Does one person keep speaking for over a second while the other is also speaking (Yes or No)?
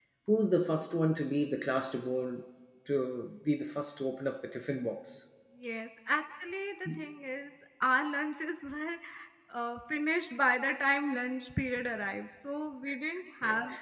No